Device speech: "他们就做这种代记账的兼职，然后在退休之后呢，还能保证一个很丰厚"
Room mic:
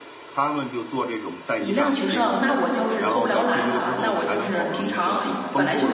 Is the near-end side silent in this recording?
No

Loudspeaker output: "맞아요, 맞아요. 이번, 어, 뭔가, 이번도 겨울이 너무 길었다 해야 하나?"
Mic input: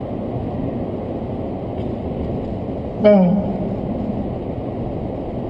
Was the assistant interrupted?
Yes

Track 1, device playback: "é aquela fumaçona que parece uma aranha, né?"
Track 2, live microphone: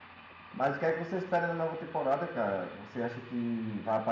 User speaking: Yes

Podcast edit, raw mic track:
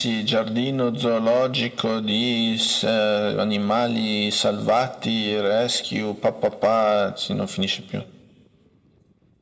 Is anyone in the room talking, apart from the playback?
No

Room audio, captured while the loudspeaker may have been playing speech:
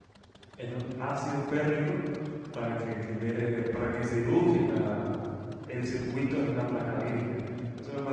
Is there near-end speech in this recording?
Yes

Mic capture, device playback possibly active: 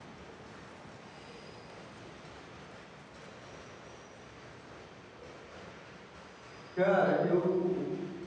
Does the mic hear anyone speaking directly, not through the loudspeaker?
Yes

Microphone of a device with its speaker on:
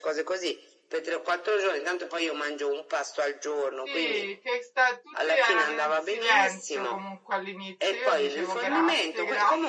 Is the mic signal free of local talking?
No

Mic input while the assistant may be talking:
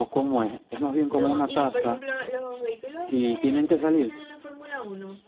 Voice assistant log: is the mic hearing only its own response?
No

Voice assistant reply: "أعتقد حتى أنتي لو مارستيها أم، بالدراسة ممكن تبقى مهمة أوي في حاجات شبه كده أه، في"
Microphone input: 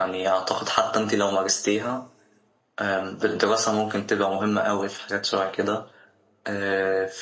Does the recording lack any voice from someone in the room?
Yes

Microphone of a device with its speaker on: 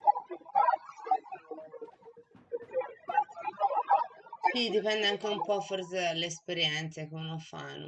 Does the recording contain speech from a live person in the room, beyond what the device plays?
Yes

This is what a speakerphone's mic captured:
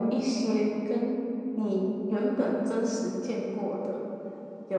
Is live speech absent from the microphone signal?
Yes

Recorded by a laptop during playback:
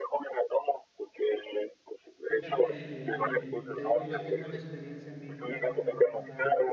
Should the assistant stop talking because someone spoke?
Yes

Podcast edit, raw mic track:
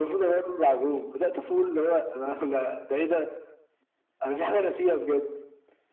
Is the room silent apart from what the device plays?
Yes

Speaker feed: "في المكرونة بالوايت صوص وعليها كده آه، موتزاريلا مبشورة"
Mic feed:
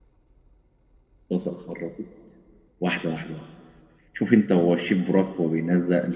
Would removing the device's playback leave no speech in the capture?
No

